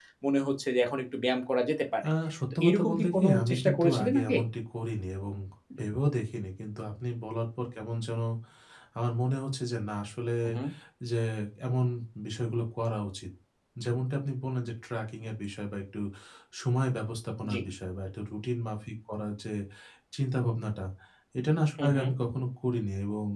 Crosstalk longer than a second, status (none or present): present